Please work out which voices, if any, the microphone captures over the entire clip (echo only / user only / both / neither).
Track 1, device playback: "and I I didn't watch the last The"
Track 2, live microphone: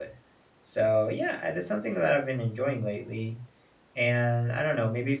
user only